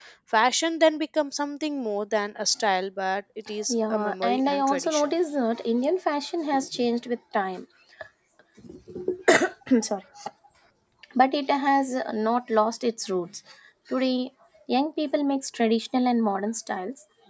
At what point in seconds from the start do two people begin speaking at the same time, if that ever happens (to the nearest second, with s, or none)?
4 s